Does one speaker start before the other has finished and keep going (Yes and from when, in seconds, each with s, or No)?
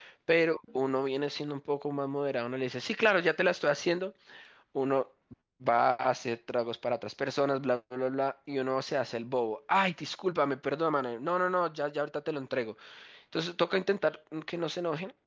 No